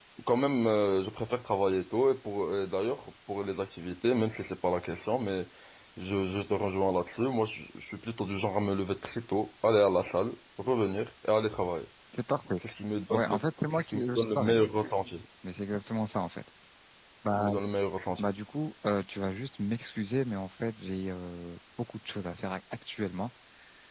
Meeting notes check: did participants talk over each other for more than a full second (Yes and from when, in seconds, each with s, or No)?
Yes, from 13.1 s